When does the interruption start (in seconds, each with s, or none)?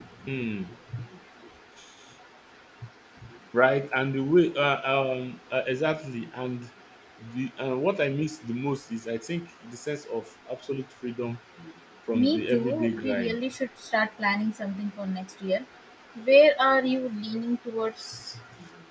12.1 s